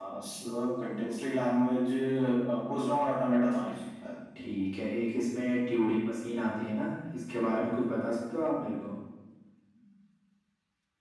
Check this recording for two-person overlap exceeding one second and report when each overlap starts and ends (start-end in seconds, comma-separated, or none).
none